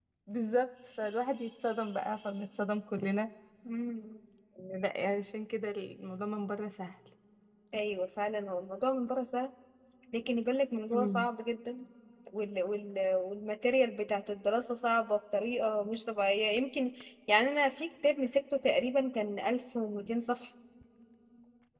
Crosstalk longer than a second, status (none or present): none